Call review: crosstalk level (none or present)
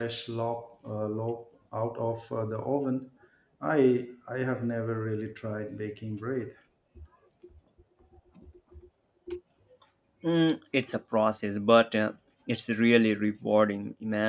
none